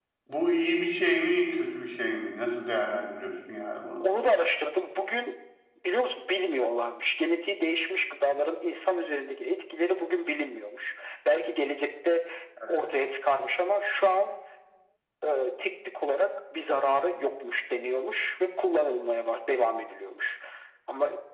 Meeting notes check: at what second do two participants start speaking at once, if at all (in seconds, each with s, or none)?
none